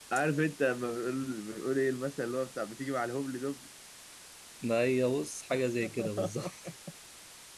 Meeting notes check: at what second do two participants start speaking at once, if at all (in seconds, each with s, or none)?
none